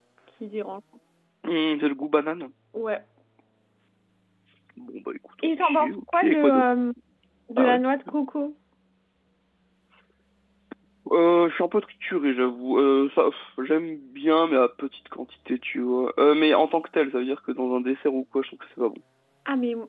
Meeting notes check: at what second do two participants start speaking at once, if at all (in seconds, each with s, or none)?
5.4 s